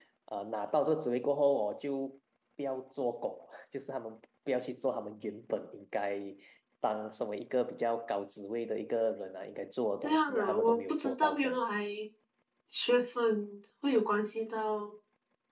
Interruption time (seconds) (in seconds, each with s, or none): 10.0 s